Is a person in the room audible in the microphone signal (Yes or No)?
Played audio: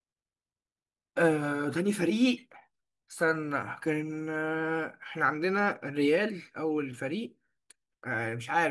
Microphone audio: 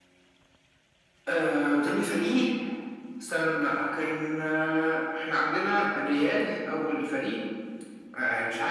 No